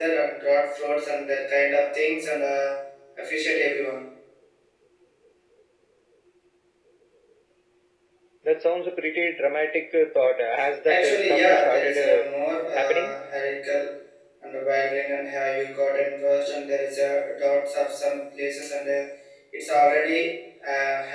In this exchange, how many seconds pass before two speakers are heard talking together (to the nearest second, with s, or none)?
11 s